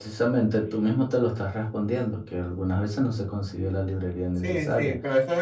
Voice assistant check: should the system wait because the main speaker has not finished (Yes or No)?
No